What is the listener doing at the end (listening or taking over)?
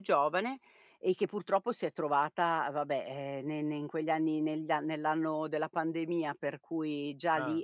listening